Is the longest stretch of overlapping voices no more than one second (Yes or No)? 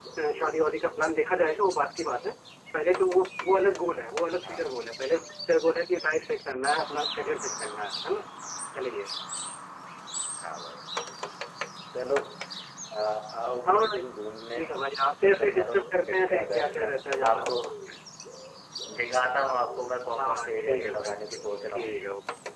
No